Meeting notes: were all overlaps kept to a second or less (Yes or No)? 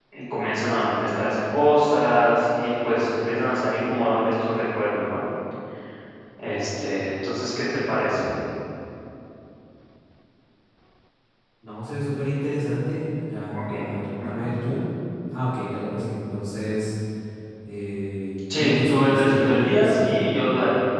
No